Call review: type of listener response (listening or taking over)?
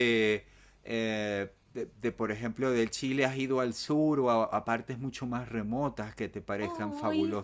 taking over